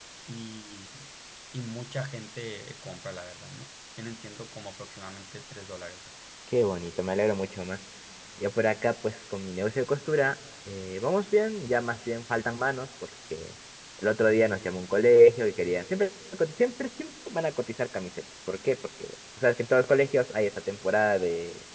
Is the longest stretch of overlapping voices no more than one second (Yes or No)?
Yes